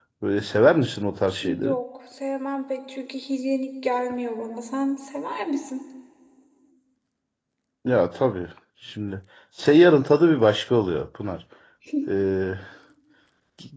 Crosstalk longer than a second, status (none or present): none